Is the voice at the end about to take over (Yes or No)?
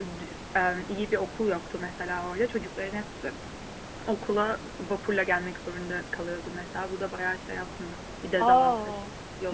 Yes